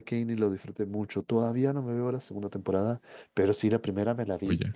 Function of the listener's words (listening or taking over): listening